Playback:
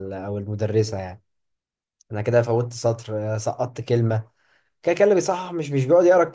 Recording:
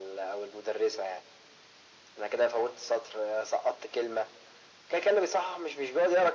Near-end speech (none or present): none